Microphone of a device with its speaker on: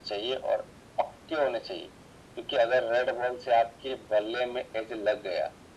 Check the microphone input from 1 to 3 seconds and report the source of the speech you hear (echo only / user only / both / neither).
echo only